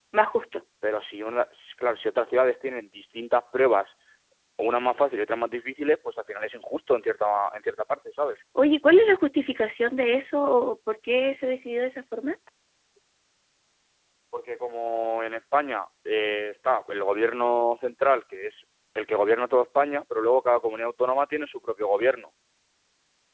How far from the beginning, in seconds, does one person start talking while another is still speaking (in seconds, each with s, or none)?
none